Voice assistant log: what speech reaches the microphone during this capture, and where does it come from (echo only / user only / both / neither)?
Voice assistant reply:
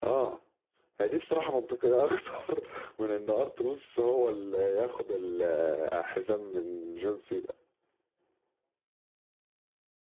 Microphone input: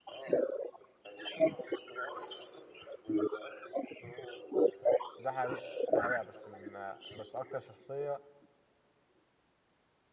both